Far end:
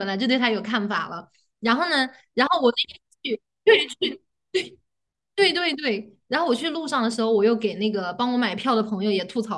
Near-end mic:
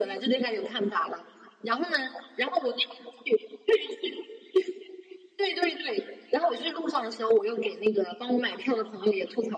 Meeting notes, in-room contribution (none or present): none